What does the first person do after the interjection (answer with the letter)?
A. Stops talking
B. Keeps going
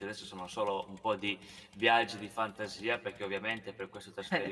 B